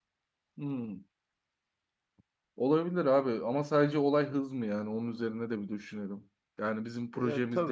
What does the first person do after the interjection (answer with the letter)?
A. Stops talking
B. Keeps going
B